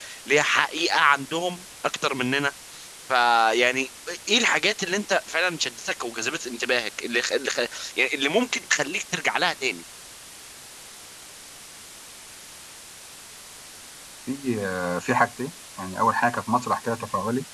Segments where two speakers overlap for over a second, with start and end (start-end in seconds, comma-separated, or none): none